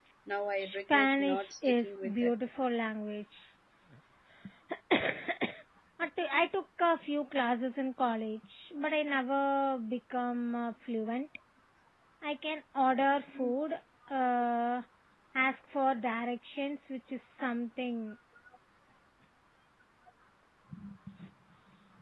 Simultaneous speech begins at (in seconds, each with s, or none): 0.6 s